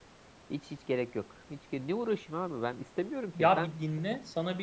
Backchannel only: No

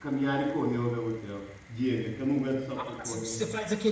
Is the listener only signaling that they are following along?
No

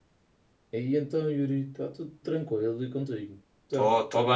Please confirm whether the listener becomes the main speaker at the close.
Yes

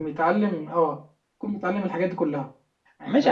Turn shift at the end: Yes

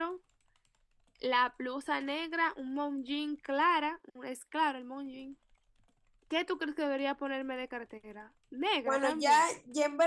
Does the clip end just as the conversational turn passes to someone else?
Yes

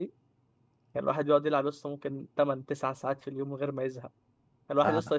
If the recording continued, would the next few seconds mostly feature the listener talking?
No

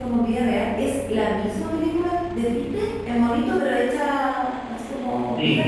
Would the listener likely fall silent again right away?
No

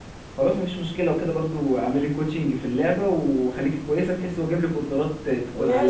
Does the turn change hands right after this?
Yes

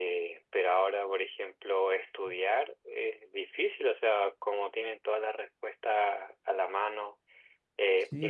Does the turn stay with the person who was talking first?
Yes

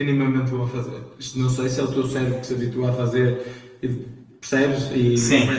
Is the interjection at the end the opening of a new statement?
No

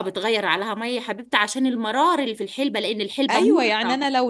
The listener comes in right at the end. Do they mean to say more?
Yes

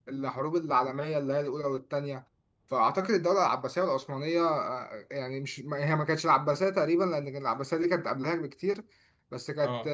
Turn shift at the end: No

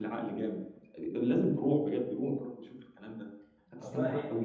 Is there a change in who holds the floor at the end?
Yes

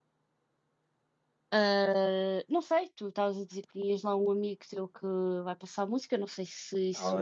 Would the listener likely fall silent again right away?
No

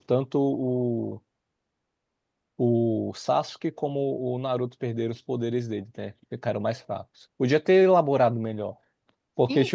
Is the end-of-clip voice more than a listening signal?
Yes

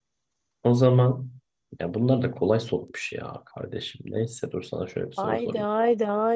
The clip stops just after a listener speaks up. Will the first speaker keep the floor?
No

